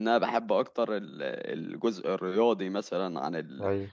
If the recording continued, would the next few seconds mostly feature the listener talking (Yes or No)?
No